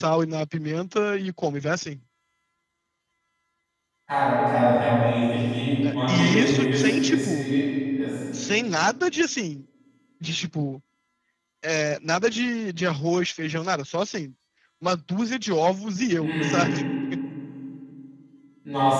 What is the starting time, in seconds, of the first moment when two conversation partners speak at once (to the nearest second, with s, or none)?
6 s